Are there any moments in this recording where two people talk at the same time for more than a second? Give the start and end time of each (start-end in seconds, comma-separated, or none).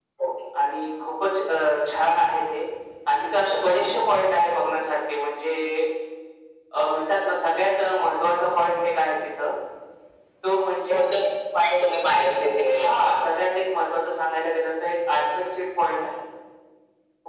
none